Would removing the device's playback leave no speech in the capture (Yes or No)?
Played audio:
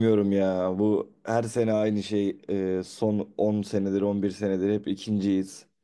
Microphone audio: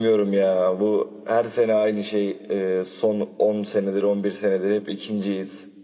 Yes